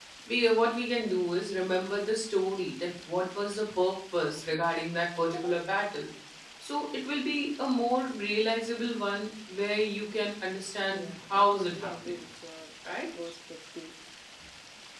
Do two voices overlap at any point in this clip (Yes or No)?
Yes